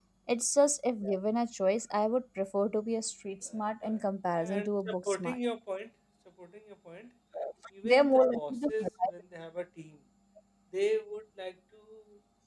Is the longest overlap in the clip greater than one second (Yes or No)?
Yes